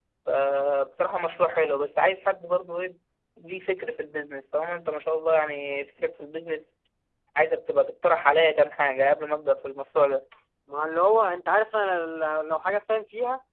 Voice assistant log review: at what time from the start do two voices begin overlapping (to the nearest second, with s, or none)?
none